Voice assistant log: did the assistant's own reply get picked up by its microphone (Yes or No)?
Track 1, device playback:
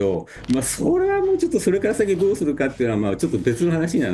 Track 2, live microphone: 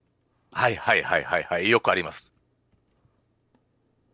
No